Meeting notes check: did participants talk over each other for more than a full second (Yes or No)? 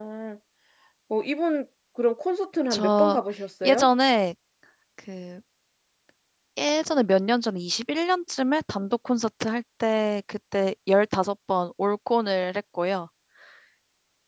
No